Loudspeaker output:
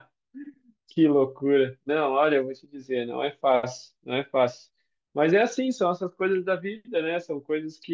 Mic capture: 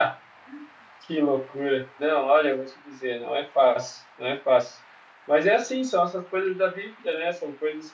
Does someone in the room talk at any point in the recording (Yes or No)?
No